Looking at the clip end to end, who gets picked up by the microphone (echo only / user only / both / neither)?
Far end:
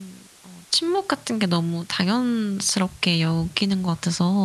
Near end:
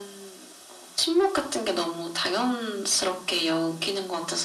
echo only